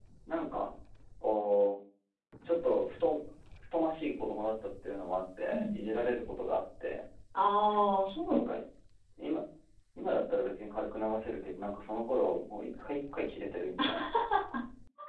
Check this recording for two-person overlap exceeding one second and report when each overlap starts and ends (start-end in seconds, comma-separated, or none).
none